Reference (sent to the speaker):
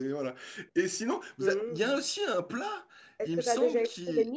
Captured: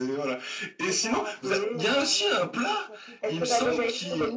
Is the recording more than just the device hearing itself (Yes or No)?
Yes